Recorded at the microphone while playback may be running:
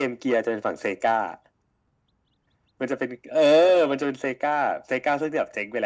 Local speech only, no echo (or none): none